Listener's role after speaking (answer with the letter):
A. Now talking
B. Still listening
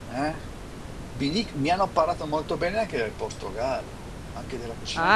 A